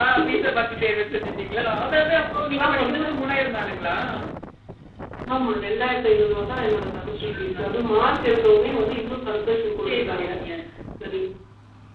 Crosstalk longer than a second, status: none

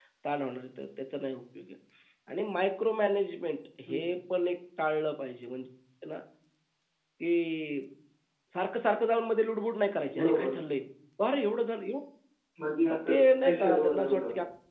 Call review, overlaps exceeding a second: present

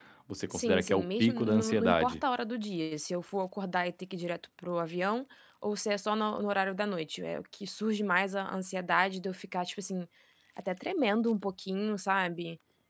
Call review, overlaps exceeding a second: present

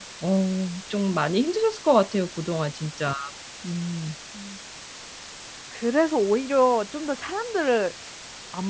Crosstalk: none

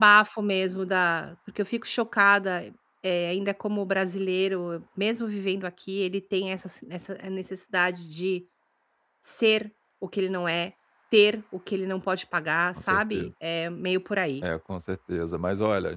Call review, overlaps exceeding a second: none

